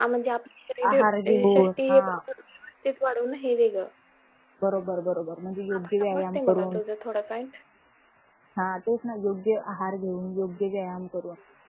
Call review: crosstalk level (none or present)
present